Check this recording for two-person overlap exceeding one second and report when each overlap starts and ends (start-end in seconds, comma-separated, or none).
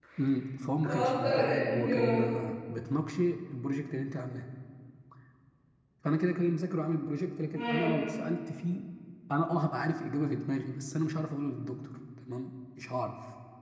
0.8-2.2